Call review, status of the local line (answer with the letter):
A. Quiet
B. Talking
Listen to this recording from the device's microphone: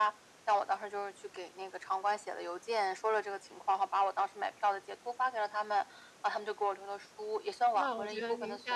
B